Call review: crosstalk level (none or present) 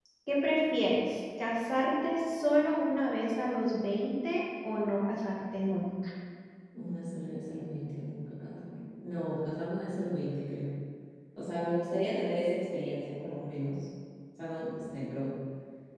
none